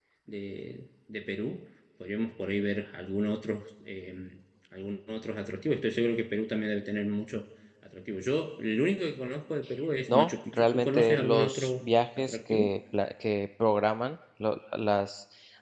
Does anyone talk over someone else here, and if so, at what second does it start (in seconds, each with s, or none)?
10.1 s